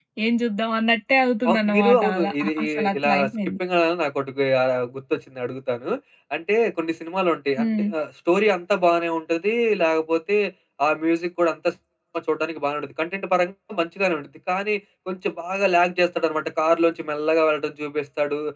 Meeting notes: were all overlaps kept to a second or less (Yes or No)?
No